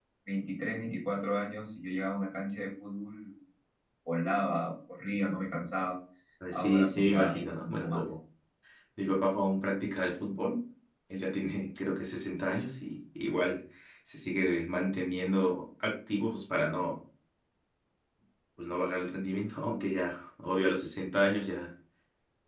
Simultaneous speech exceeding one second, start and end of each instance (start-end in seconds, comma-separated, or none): 6.5-8.1